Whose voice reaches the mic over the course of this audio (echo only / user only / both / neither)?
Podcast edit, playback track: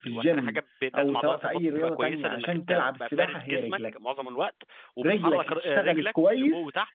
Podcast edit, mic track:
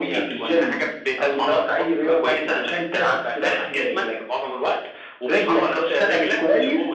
echo only